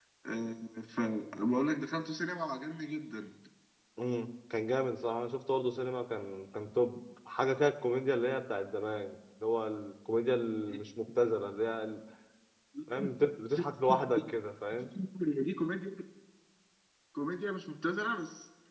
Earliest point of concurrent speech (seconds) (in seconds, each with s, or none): none